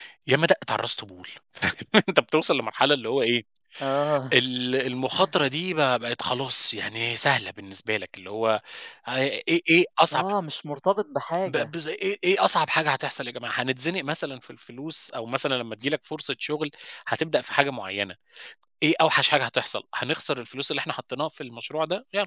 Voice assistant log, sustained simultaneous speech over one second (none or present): none